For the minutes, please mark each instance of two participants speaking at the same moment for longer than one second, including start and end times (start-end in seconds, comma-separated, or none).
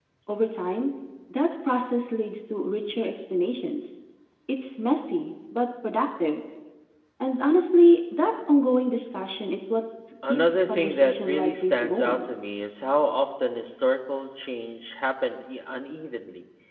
10.3-12.2